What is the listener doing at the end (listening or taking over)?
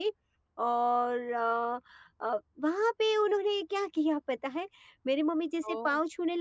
listening